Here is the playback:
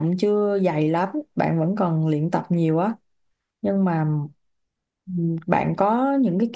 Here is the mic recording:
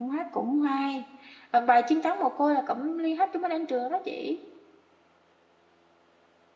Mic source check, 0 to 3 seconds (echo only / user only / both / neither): user only